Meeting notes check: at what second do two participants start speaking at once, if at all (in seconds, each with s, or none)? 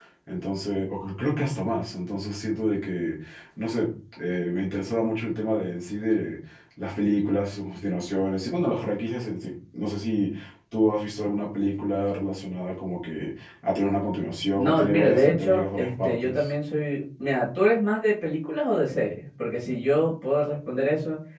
14.6 s